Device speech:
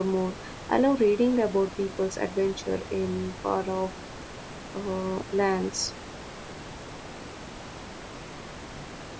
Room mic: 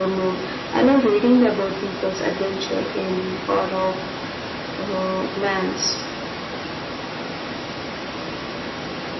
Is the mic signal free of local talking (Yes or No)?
Yes